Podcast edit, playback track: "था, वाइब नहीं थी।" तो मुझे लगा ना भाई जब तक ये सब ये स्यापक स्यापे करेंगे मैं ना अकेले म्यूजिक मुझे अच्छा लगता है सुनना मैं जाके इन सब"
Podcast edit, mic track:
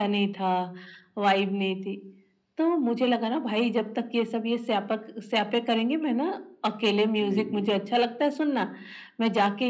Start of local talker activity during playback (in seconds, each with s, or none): 7.2 s